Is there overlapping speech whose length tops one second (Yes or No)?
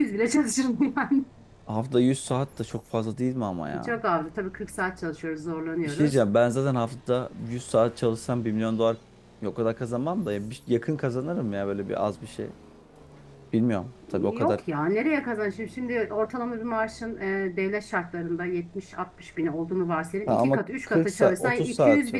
Yes